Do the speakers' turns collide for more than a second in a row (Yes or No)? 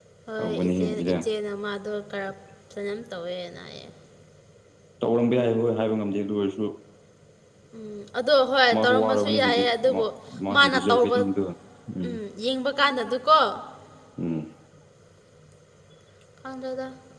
Yes